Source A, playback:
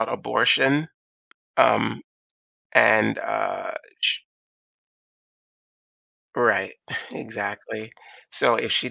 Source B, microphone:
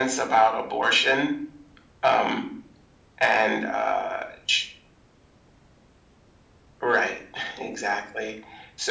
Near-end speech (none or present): none